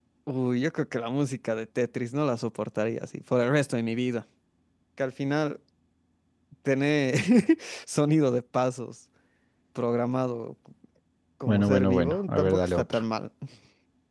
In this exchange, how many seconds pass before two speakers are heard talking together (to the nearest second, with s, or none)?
11 s